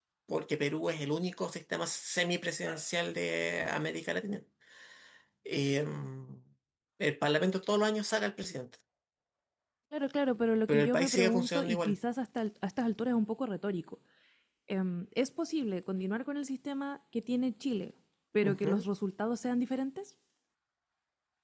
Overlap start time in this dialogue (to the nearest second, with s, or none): 11 s